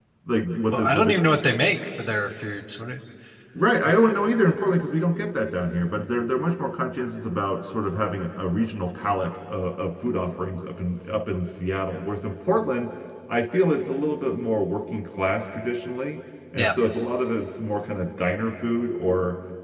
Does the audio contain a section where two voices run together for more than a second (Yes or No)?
No